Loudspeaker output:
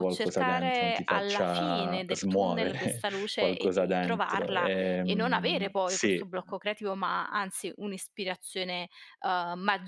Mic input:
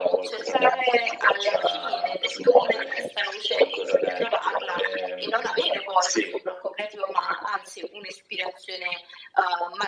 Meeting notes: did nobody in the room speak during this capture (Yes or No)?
Yes